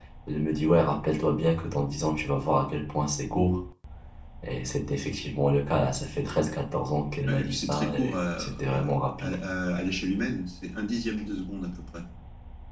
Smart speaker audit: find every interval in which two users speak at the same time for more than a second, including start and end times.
7.3-8.8

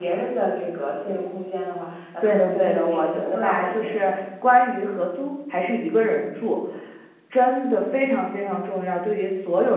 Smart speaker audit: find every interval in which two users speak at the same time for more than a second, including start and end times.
2.2-4.2

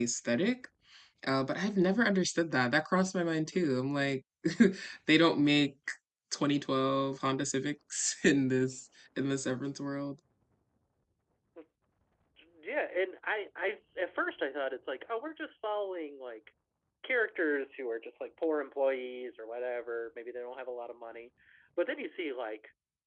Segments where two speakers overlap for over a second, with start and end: none

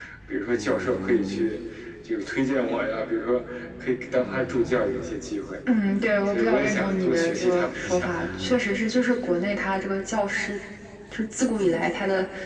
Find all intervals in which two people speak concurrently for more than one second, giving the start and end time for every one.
6.3-8.1

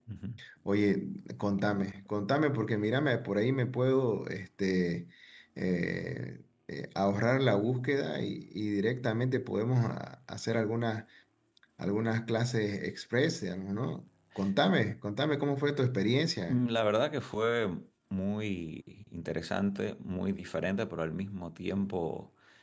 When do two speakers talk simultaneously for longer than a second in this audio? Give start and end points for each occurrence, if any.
none

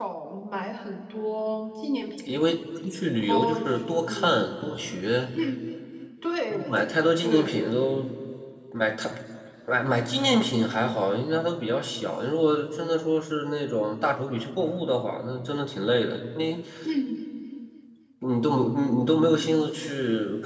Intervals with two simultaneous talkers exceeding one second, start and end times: 3.2-4.5

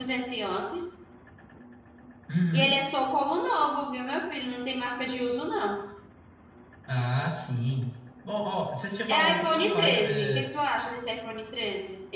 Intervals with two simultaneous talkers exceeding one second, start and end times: 9.1-10.5

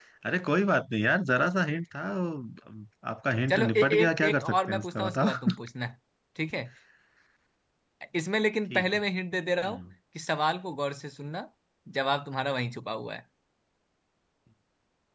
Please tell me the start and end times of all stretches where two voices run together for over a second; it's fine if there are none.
3.5-5.5

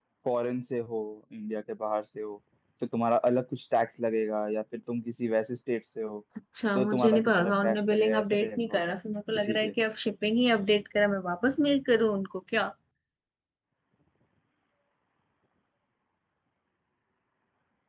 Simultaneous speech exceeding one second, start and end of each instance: 6.8-8.8

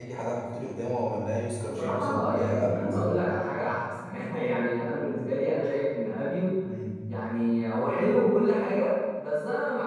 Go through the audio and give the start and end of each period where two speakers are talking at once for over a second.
1.6-3.0

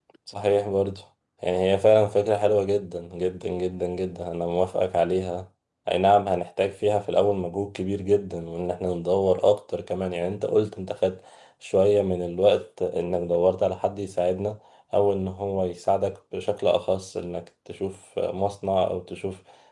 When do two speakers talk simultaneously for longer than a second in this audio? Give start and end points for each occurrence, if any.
none

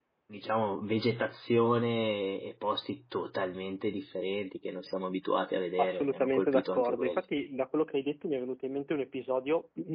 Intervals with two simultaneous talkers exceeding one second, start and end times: 5.8-7.2

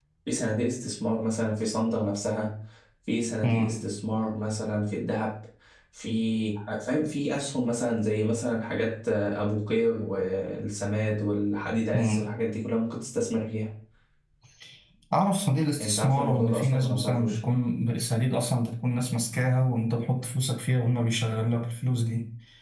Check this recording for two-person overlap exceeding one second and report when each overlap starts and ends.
15.8-17.4

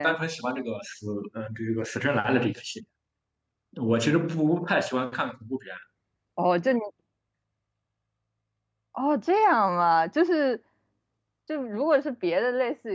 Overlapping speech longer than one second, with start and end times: none

